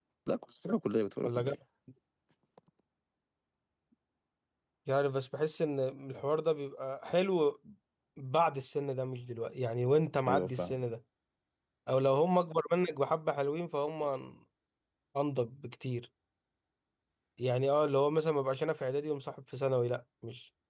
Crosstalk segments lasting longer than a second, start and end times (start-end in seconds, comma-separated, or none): none